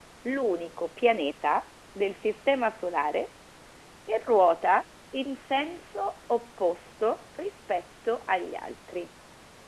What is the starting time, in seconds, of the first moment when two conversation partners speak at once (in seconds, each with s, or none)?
none